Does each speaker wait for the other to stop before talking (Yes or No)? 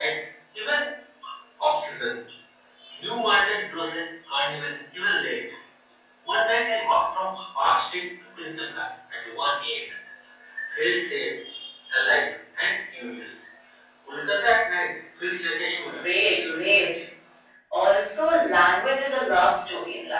No